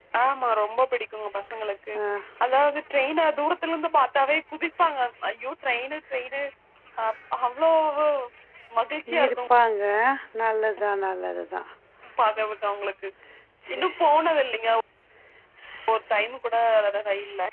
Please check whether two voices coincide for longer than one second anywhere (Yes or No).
No